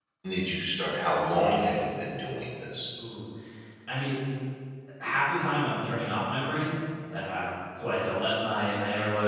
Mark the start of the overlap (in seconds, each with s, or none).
none